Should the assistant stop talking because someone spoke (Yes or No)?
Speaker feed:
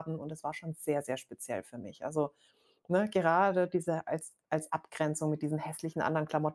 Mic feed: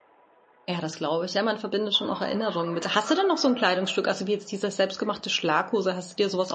Yes